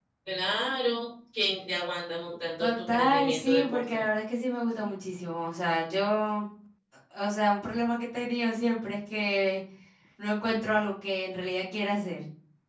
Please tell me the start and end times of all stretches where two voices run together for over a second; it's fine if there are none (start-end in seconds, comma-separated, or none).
2.6-4.0